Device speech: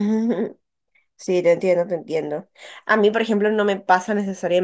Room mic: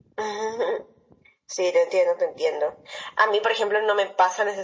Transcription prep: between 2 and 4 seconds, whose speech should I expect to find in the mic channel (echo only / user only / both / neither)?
echo only